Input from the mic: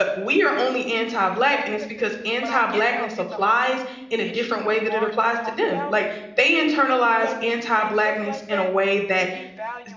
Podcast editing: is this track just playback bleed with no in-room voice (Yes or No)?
No